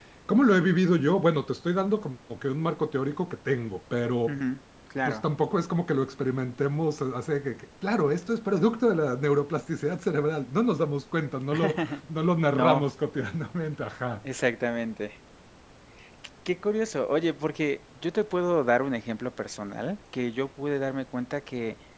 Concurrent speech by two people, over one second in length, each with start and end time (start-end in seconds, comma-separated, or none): none